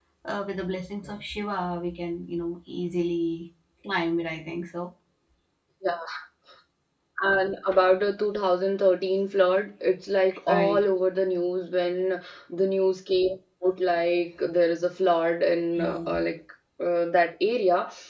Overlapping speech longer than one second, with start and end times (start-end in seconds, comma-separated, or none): none